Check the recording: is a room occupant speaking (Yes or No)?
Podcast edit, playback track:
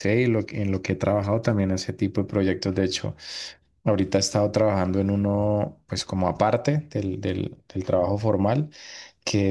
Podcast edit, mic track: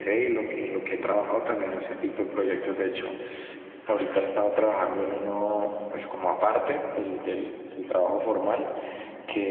No